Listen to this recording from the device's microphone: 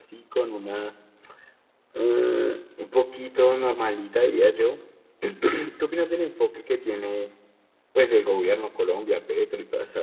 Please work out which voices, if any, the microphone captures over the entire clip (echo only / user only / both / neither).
user only